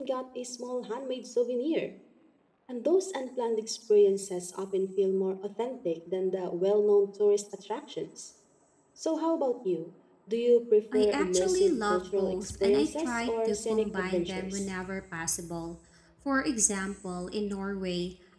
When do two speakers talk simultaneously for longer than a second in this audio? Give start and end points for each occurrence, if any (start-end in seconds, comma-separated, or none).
10.9-14.7